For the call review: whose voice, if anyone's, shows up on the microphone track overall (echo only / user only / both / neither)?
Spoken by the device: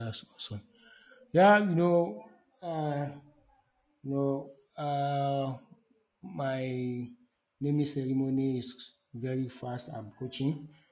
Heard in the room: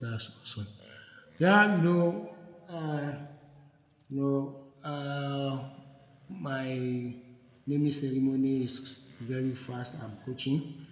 echo only